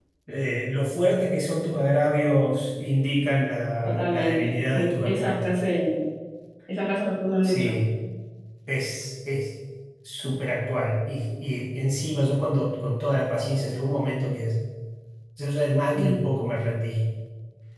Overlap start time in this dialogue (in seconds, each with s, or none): 3.8 s